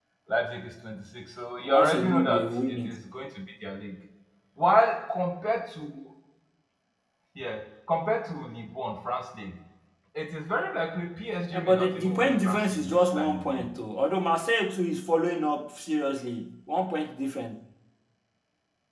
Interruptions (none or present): present